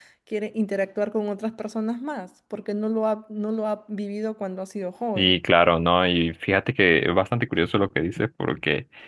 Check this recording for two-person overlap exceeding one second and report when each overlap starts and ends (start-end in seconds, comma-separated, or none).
none